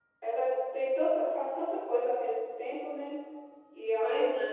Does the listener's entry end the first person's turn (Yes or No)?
No